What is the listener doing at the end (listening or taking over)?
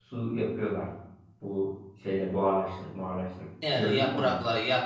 taking over